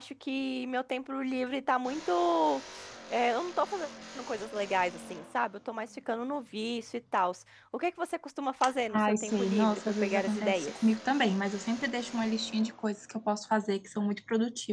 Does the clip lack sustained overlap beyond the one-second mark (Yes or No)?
No